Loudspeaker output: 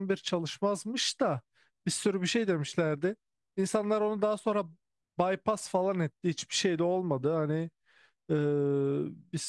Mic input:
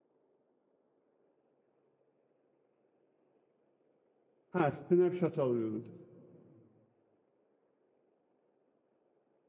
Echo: none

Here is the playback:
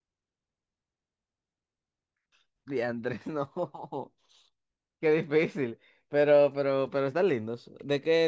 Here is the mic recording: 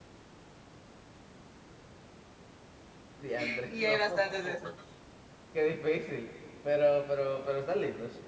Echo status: present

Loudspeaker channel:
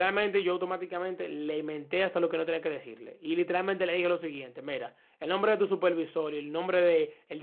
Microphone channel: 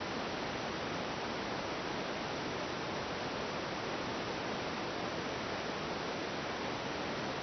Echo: none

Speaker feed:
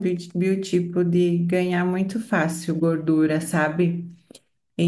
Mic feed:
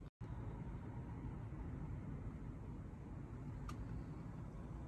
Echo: none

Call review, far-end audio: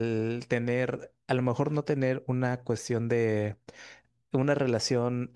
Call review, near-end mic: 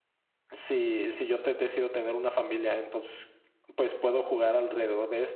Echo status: none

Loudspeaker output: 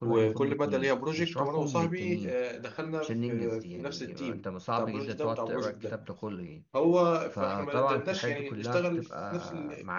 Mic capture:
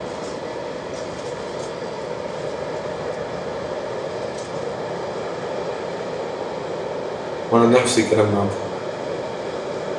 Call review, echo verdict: none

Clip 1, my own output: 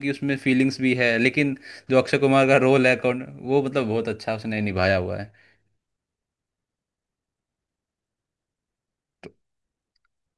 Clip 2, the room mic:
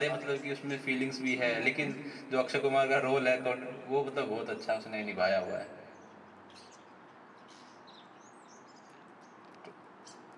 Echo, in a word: present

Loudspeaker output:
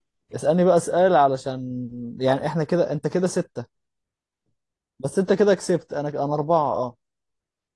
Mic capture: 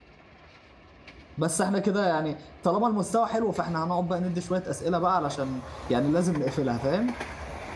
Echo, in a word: none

